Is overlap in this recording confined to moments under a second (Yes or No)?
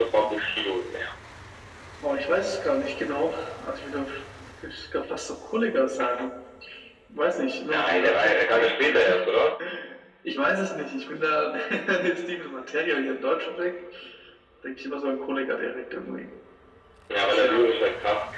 No